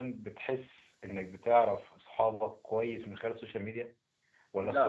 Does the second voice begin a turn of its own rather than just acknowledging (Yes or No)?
No